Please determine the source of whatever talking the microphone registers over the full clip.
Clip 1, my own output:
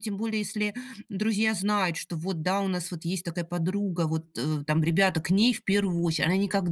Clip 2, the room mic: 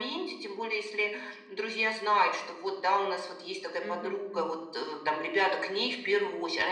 both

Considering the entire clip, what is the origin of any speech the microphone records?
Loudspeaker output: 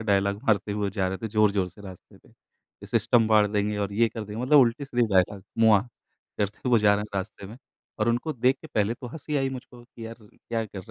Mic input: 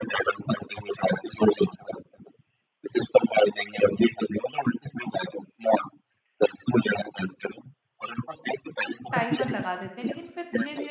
both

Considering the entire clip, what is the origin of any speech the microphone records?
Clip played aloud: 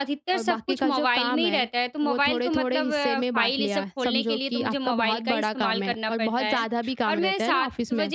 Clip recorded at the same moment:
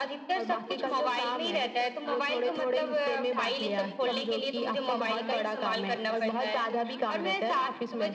both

